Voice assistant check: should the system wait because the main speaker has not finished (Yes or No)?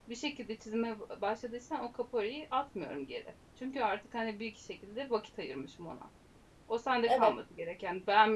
Yes